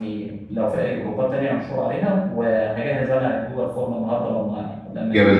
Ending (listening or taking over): taking over